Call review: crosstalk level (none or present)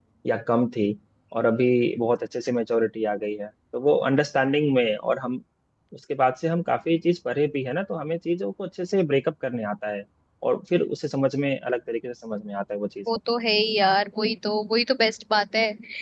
none